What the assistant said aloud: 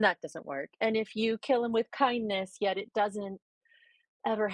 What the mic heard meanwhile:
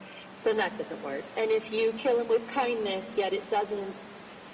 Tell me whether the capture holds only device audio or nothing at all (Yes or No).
Yes